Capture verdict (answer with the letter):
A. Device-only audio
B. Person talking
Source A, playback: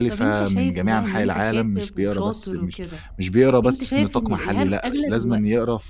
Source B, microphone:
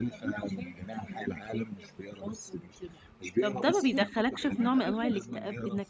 B